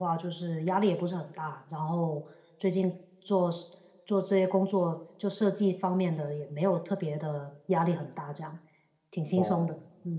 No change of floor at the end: No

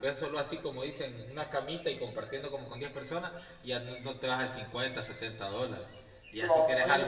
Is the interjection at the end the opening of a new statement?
No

